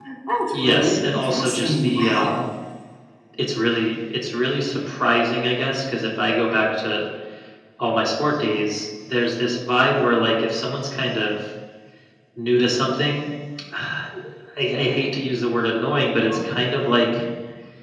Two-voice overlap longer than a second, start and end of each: 0.5-2.5

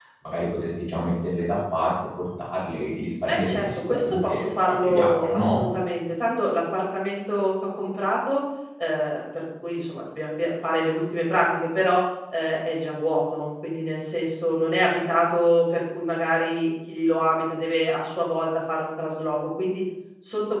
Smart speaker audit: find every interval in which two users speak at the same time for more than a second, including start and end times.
3.2-5.6

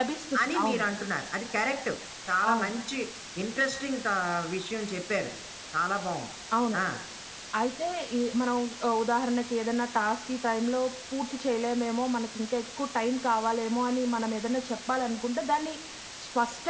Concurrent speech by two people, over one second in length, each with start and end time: none

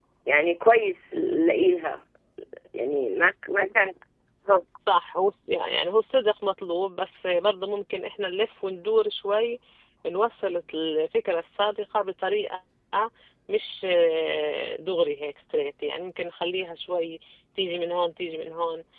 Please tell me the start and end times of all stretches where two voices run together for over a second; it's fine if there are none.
none

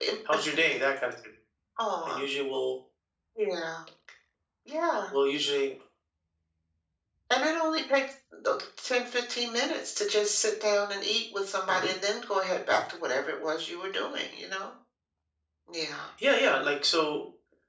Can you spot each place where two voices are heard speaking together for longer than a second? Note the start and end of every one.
none

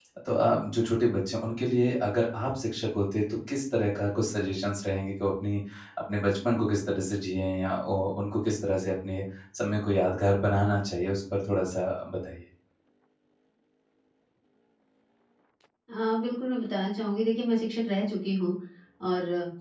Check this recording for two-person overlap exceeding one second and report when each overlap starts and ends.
none

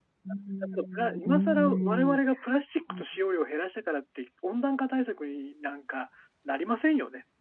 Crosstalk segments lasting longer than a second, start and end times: 0.7-2.2

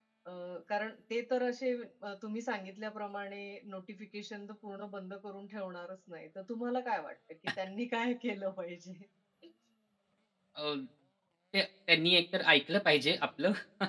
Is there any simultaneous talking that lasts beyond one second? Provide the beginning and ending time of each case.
none

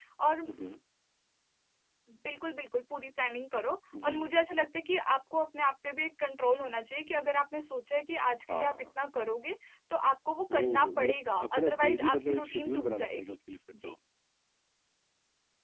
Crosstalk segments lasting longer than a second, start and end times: 10.5-13.2

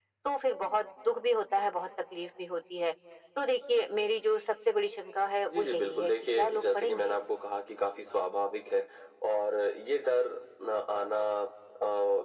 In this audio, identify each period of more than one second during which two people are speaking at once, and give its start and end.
5.5-7.1

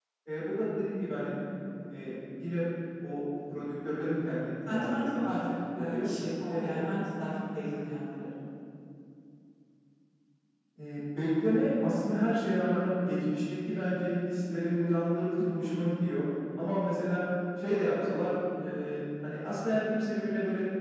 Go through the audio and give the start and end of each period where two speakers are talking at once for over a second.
4.7-6.1

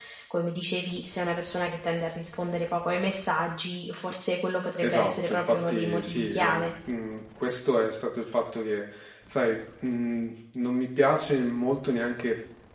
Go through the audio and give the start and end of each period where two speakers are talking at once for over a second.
4.8-6.7

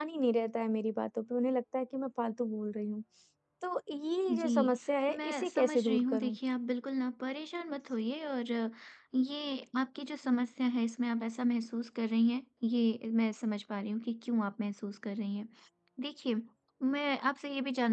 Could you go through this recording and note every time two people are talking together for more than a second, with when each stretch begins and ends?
5.1-6.4

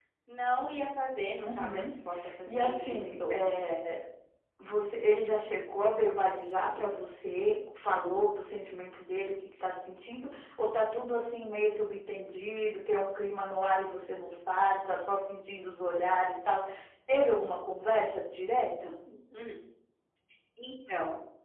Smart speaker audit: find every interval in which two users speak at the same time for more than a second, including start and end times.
2.5-3.7

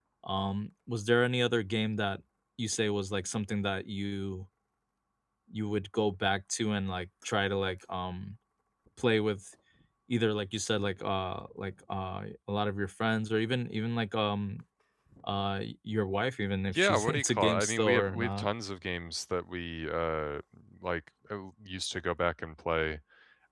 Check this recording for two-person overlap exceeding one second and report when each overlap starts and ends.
16.7-18.5

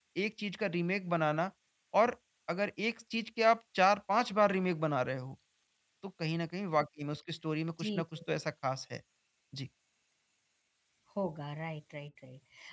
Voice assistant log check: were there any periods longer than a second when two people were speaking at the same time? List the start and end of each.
none

